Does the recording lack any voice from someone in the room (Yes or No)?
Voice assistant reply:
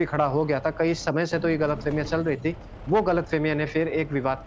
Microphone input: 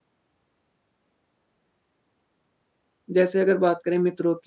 No